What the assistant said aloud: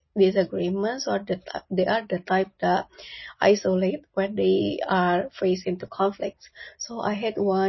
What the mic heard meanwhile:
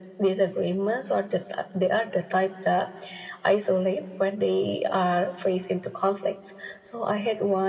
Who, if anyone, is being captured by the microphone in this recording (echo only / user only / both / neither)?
echo only